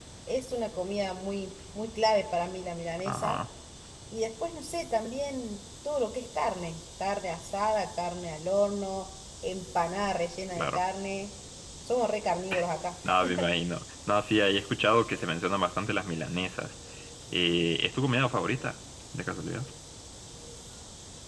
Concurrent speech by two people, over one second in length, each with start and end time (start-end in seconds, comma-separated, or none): none